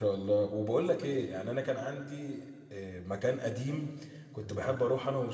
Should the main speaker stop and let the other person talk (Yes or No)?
No